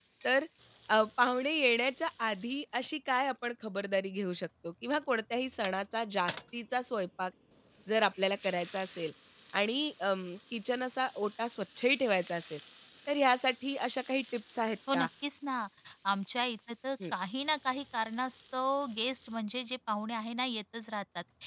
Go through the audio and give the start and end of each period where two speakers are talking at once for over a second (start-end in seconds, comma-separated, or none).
none